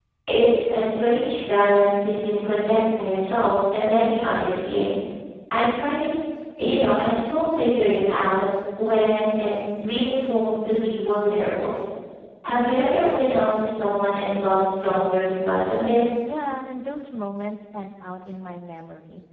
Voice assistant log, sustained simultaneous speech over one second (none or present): none